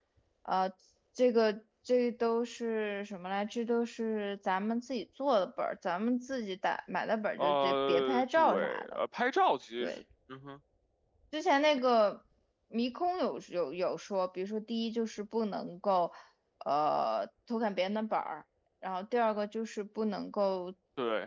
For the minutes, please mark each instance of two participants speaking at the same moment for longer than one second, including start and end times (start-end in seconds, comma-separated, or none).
7.4-9.0